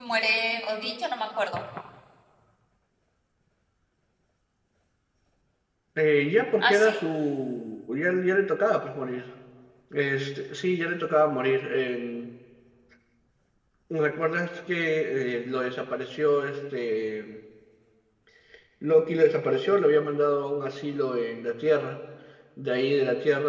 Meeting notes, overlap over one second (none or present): none